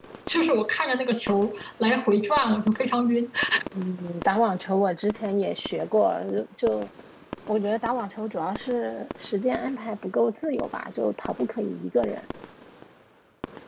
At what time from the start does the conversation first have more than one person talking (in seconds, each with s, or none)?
none